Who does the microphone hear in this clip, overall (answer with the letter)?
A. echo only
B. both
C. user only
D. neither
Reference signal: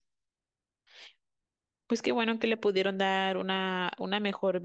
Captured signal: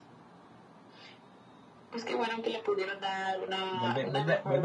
B